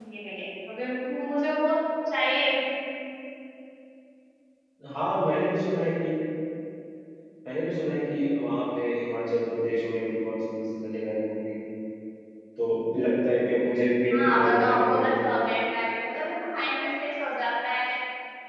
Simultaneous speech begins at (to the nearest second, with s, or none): 14 s